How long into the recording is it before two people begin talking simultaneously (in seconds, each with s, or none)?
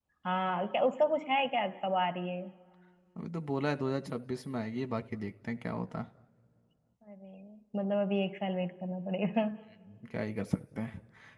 none